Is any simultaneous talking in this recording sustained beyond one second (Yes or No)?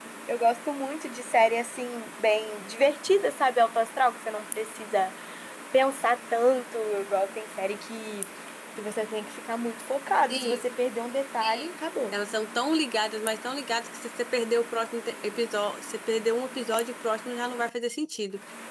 No